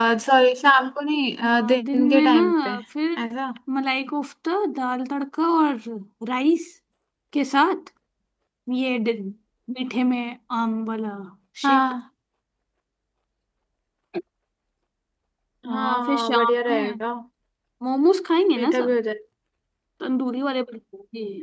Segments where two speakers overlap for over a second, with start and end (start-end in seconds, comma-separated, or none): 1.4-2.8, 15.7-16.9